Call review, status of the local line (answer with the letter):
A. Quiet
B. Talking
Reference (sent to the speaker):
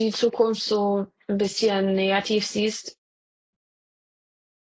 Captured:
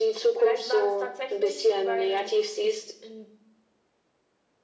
B